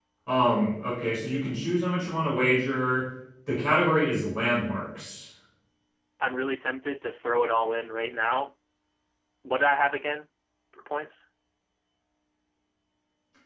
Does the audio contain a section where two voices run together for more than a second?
No

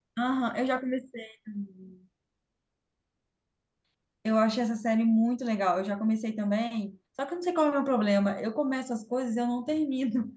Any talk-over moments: No

